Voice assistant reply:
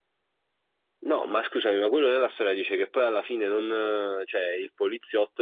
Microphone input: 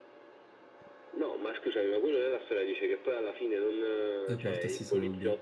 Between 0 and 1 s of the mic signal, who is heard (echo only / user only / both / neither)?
neither